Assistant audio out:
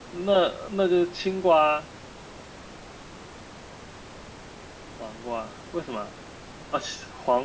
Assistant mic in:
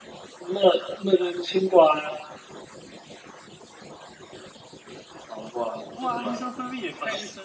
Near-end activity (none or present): present